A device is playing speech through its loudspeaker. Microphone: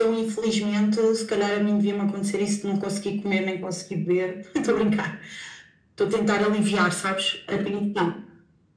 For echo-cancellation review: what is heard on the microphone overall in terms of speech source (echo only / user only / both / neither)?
echo only